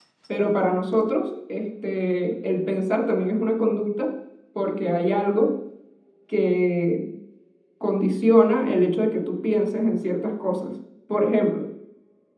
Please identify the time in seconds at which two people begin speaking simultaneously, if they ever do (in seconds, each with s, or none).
none